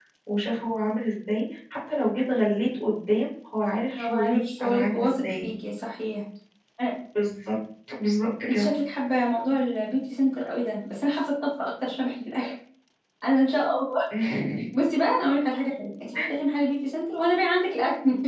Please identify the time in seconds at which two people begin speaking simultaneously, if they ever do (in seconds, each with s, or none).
4.0 s